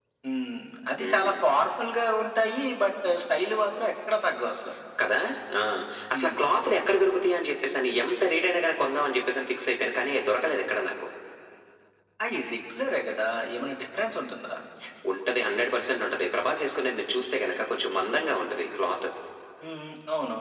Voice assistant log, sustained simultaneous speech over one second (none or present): none